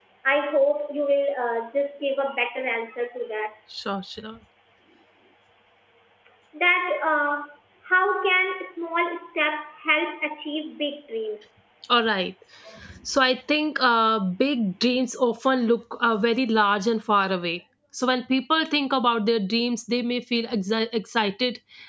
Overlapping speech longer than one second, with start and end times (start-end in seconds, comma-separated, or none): none